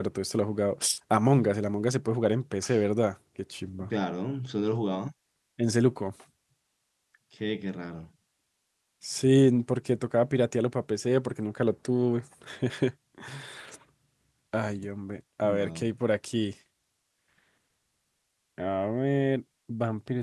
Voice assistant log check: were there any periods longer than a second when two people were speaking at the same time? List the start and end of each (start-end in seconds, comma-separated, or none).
none